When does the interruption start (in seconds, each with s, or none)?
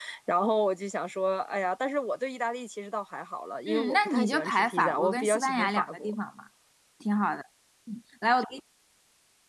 3.7 s